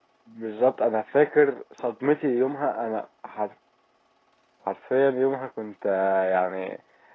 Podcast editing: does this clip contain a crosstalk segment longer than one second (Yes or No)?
No